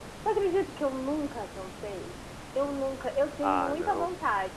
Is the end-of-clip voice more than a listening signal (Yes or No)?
No